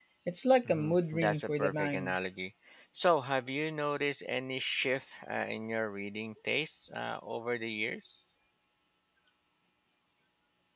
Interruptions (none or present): present